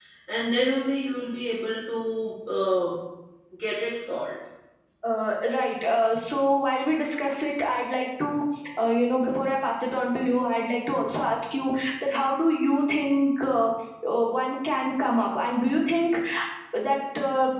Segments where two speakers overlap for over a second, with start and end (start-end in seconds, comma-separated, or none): none